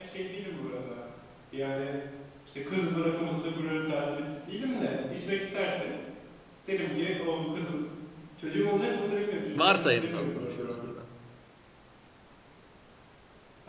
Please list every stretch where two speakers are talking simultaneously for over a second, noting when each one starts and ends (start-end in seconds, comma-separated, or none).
9.5-10.8